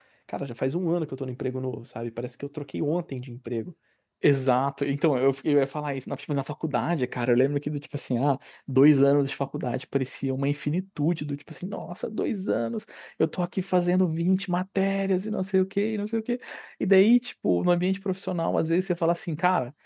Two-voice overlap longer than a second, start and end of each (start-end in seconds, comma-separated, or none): none